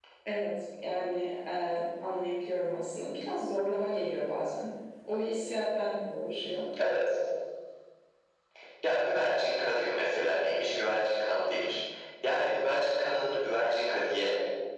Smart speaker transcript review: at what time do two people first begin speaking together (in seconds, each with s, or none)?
none